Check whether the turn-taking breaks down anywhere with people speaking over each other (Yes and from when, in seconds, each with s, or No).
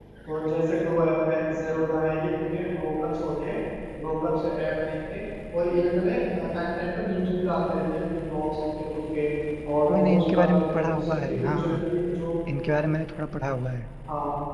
Yes, from 9.8 s